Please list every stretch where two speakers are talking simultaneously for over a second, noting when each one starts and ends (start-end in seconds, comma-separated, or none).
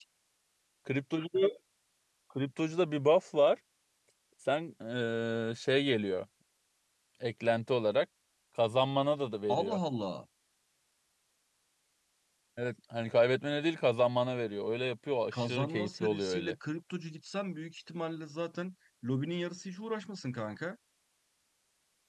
15.3-16.5